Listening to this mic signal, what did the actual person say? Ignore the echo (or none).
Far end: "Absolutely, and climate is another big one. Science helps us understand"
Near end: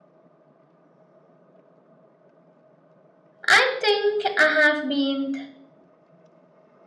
I think I have been